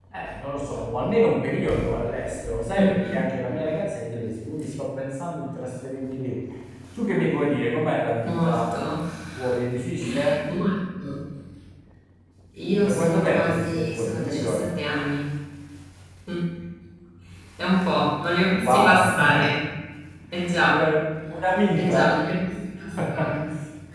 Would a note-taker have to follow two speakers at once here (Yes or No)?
Yes